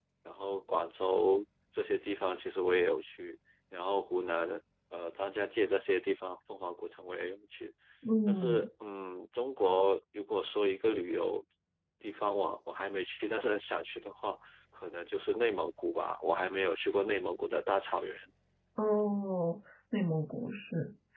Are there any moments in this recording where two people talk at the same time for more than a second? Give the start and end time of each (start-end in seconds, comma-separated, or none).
none